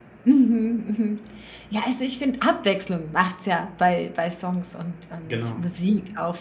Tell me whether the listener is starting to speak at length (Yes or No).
No